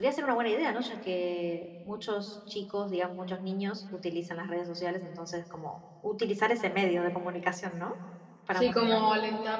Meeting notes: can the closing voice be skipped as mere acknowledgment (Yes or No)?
No